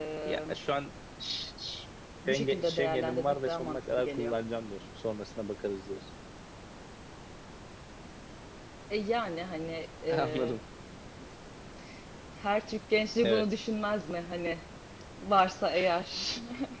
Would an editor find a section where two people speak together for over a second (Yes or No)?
Yes